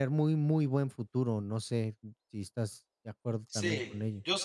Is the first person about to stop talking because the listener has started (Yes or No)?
Yes